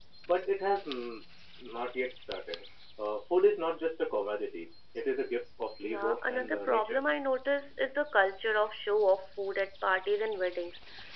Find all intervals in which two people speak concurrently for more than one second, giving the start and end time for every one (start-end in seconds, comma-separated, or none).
5.8-7.1